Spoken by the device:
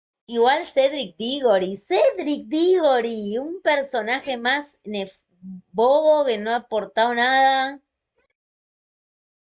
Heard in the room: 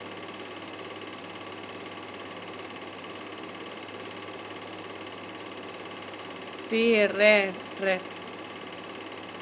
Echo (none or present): none